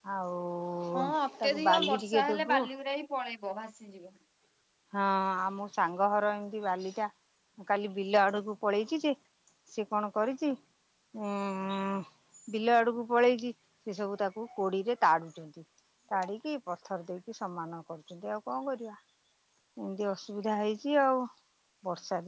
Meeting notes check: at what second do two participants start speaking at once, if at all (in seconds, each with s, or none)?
0.9 s